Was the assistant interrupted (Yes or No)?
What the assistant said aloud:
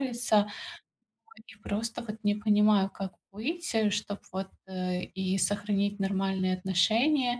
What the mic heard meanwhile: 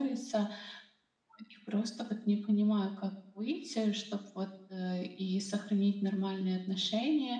No